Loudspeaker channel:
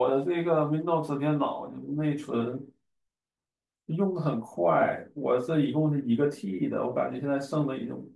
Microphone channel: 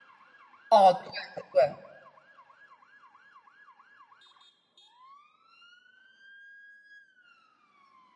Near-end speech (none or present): present